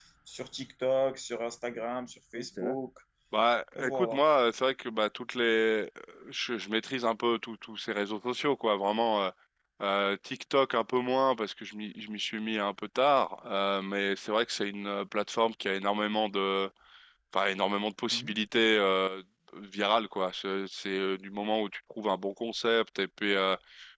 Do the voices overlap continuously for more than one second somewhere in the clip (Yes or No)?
No